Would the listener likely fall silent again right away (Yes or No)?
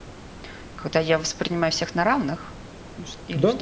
No